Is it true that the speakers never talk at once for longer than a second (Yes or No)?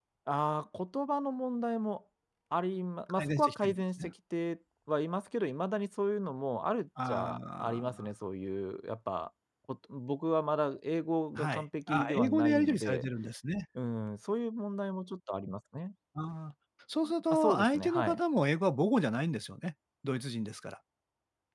No